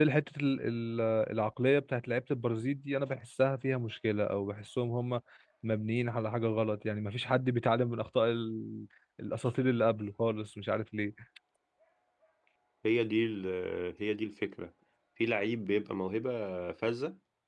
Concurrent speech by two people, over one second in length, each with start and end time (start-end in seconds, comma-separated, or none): none